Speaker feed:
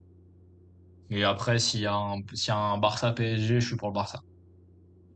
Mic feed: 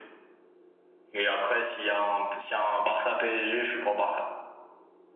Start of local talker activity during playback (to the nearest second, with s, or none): none